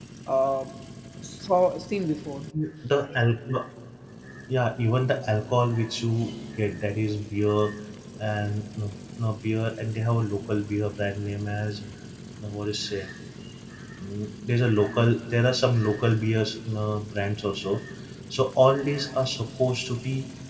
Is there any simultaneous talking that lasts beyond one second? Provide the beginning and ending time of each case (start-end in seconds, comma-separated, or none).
none